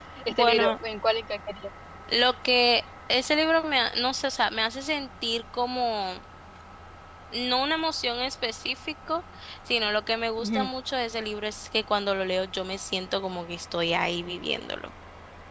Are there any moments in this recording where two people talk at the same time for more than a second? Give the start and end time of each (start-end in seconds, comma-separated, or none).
none